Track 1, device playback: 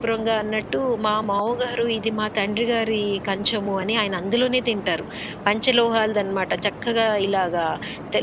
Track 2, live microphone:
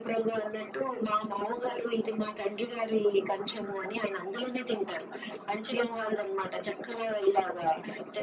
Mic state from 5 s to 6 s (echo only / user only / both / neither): echo only